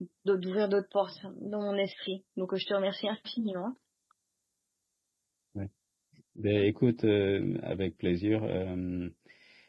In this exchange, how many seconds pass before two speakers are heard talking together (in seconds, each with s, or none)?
none